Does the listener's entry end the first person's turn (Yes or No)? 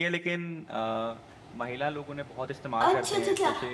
Yes